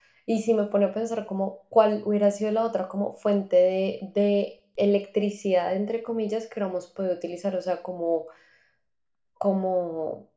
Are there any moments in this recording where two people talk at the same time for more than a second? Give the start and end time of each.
none

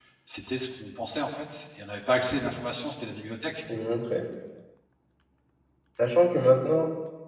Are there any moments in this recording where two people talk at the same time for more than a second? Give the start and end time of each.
none

